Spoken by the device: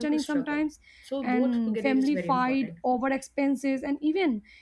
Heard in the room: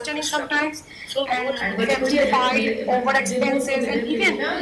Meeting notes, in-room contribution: present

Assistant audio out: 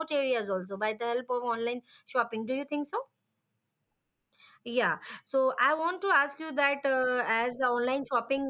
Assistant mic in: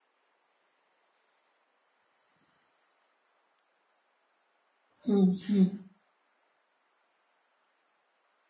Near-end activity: present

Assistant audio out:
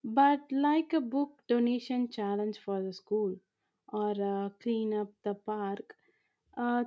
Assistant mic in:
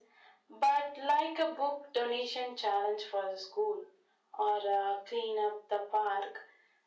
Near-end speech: none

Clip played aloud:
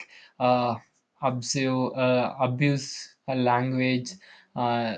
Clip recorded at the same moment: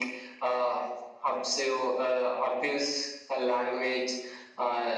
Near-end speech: none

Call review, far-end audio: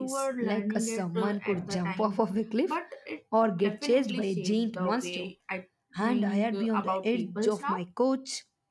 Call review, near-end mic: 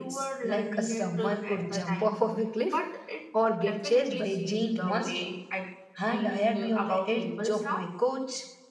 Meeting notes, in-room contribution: none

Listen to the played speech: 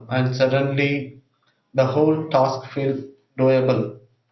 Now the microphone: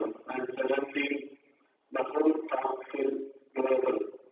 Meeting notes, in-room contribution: none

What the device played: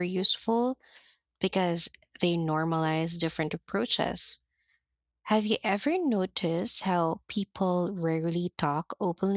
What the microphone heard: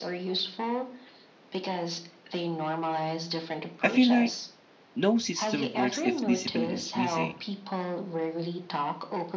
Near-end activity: present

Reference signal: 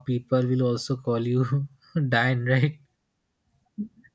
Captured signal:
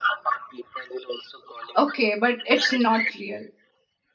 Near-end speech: present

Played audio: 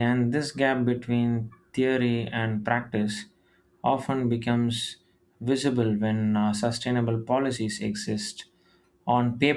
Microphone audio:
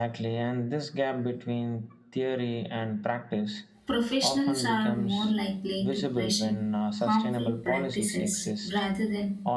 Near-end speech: present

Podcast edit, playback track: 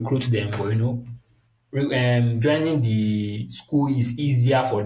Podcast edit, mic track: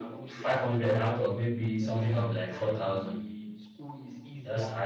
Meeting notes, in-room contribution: present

